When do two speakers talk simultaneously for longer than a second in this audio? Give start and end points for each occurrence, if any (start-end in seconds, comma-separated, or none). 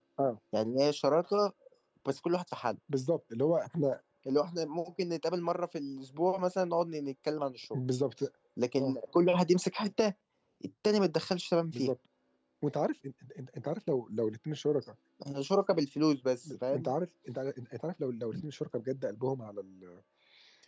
none